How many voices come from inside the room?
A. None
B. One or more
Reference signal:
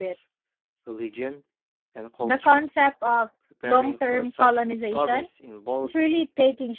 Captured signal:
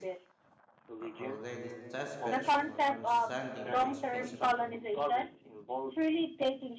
B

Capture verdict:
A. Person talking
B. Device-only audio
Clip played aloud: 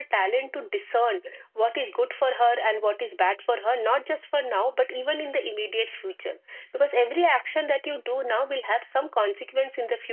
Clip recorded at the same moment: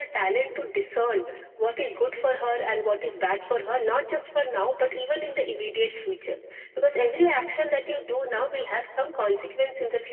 B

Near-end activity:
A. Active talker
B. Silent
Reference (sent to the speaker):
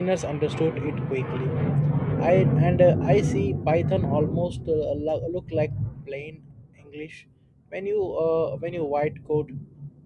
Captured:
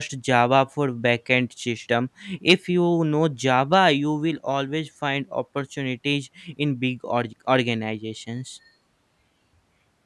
A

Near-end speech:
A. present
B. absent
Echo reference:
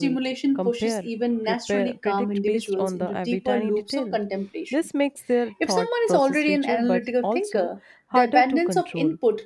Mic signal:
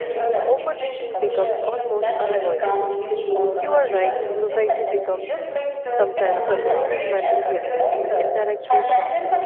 A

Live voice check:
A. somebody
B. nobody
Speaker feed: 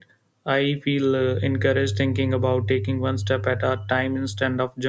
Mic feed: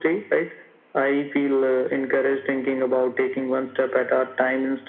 B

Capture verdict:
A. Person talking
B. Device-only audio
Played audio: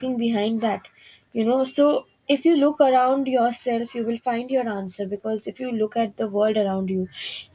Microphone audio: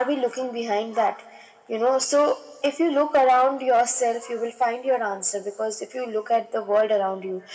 B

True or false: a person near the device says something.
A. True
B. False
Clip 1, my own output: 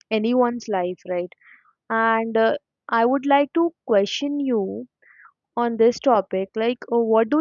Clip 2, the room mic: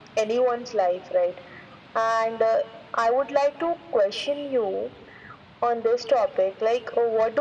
B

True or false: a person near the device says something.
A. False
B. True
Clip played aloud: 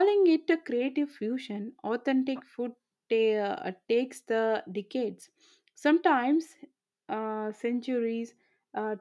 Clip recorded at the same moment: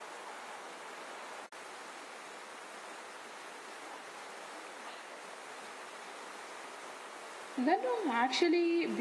B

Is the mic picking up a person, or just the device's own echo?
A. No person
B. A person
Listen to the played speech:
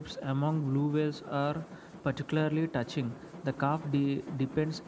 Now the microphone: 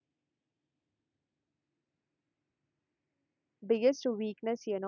B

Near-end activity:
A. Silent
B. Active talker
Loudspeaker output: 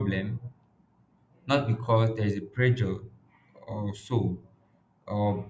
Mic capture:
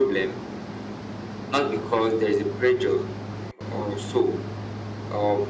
A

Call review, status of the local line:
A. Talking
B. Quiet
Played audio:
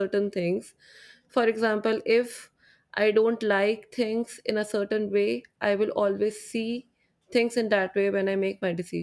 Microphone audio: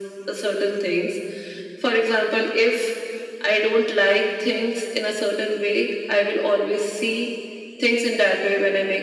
B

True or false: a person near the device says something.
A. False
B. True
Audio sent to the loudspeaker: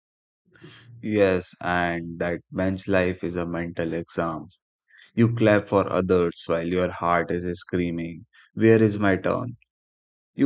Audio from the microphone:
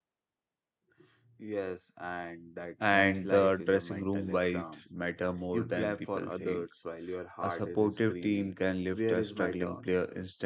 B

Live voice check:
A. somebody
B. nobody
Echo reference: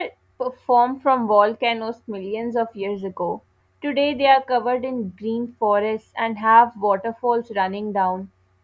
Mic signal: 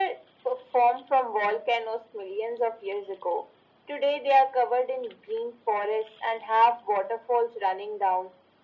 B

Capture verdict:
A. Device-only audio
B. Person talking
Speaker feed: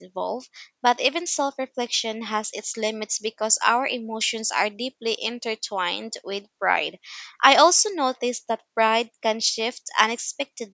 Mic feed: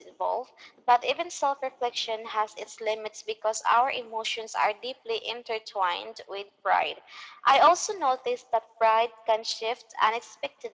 A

